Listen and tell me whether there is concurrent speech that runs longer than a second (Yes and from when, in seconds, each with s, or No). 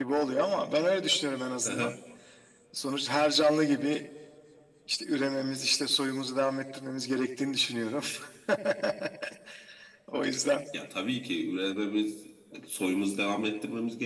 No